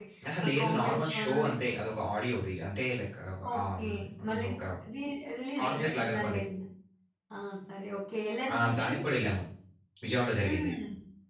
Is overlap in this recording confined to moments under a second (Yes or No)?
No